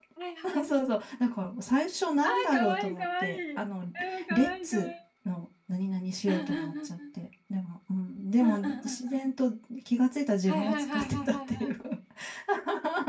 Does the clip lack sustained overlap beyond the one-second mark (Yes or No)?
No